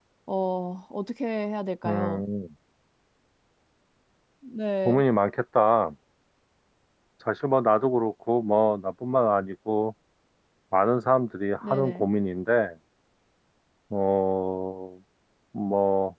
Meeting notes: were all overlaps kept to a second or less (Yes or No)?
Yes